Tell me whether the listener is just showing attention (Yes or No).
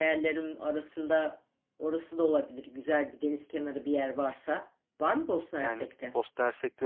No